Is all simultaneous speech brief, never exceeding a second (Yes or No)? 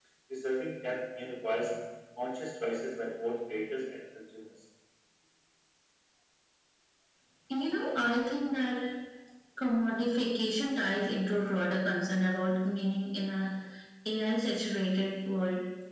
Yes